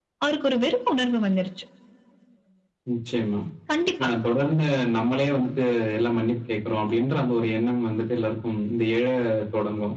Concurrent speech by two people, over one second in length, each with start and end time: none

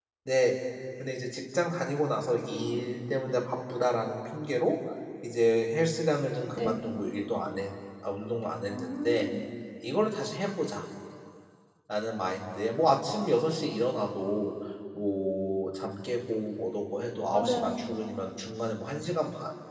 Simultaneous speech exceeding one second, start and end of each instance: none

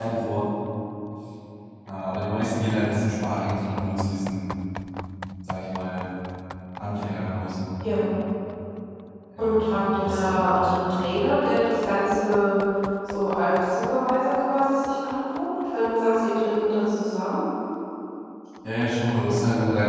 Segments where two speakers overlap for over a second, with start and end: 9.4-11.0

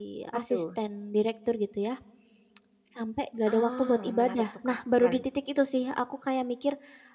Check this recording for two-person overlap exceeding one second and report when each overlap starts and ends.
3.5-5.2

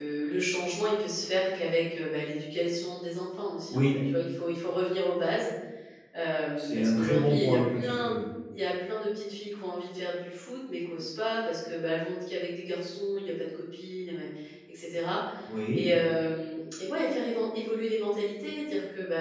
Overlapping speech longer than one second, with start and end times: 6.6-8.1

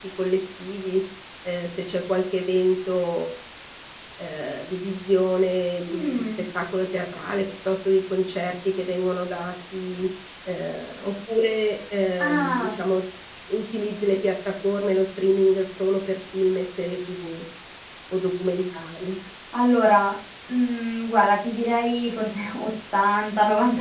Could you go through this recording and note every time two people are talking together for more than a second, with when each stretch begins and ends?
none

